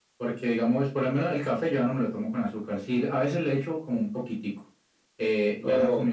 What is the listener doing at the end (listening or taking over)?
listening